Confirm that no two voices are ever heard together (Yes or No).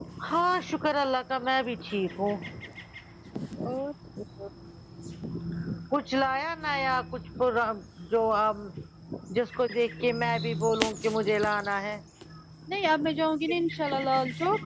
Yes